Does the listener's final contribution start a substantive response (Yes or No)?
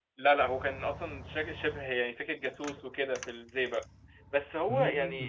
No